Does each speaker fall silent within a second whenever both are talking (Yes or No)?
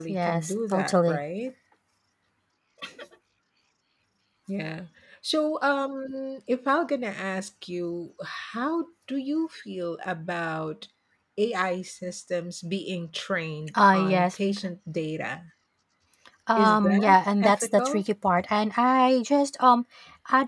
No